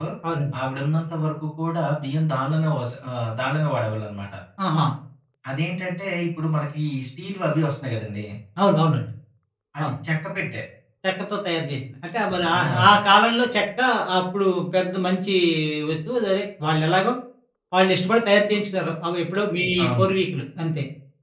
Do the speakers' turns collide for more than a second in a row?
No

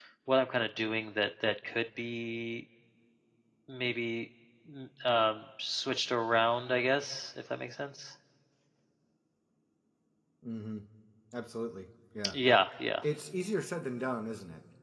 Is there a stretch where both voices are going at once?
No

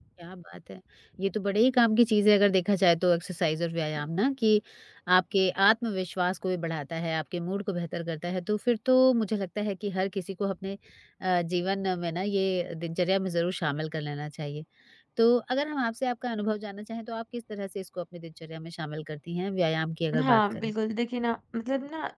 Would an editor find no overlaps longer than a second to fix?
Yes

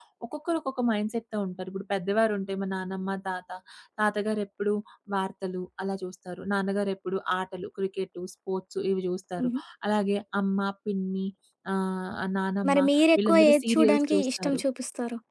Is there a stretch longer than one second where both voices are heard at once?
Yes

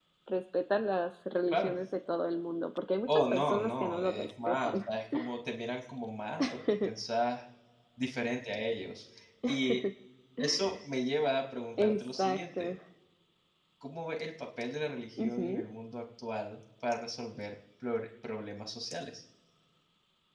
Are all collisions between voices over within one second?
No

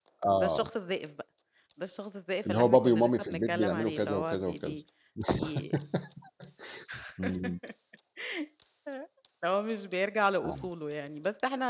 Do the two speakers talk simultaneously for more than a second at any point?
Yes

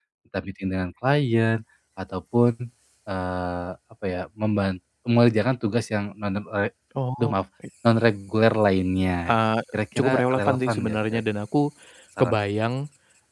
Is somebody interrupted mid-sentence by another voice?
Yes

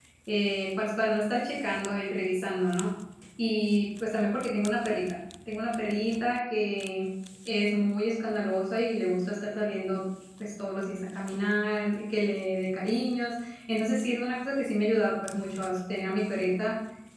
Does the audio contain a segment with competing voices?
No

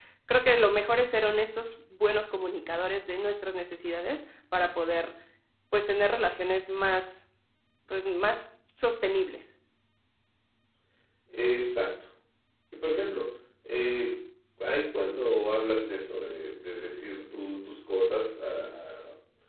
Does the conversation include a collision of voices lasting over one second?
No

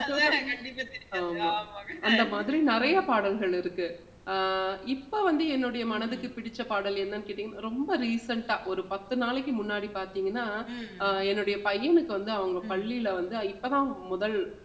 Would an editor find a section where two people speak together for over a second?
No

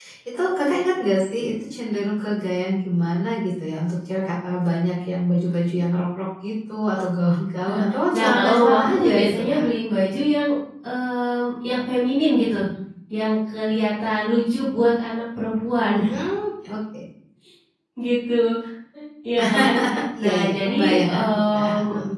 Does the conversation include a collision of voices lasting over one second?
Yes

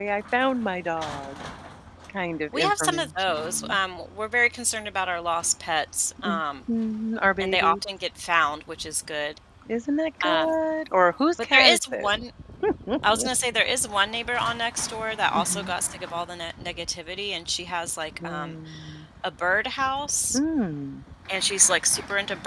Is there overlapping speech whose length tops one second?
Yes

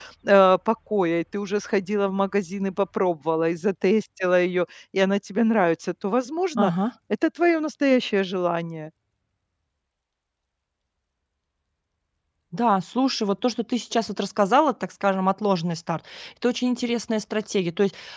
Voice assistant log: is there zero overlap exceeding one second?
Yes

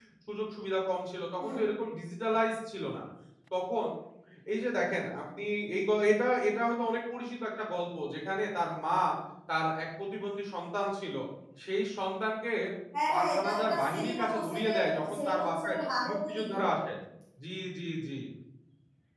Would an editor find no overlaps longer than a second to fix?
No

